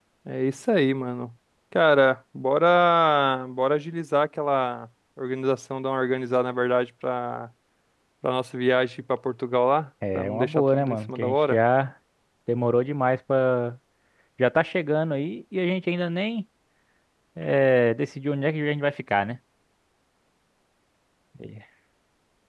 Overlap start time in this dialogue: 10.0 s

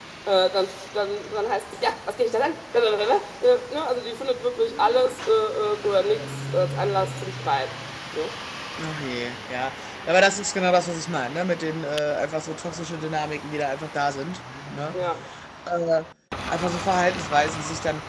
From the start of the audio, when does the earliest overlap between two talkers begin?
none

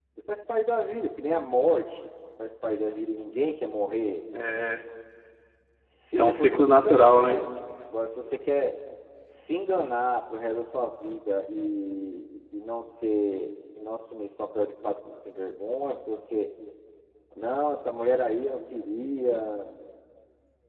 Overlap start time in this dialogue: 6.1 s

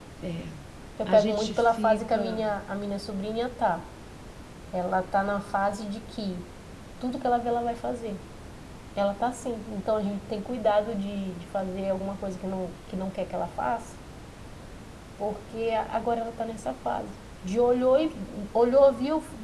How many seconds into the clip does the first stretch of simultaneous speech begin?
1.1 s

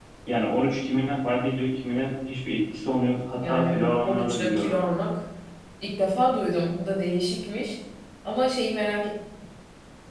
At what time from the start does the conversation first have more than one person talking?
3.4 s

